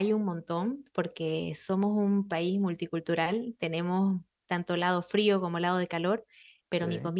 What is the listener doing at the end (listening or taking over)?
listening